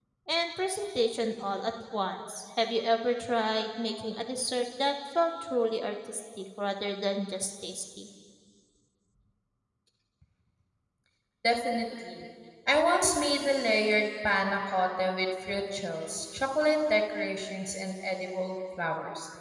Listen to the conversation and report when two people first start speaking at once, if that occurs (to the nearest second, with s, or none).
none